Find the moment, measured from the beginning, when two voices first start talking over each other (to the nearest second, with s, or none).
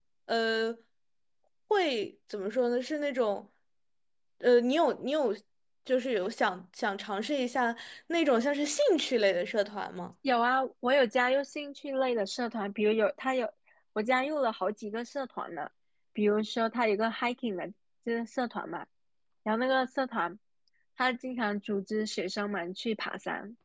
none